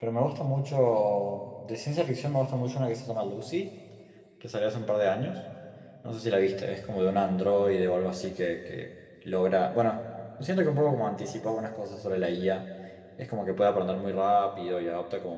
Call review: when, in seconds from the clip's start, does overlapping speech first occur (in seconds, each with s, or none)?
none